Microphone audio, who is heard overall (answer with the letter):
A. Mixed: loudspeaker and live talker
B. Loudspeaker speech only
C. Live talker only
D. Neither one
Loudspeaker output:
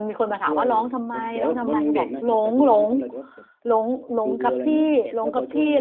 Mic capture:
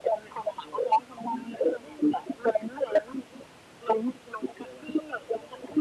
B